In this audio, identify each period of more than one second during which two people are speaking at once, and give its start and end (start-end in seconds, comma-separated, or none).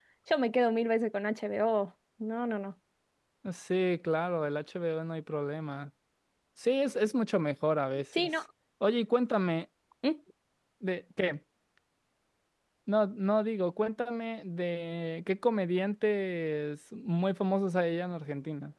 none